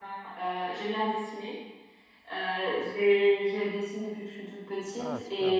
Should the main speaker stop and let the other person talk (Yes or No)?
No